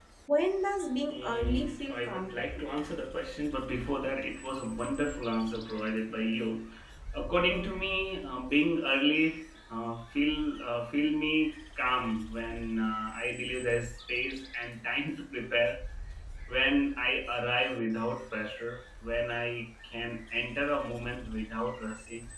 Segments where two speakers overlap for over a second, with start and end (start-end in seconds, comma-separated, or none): 1.1-2.4